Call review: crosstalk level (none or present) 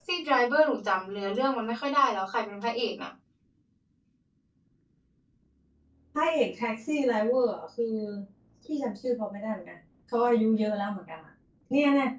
none